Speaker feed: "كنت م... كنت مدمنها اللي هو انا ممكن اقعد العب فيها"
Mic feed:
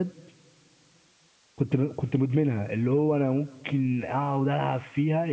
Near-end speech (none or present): none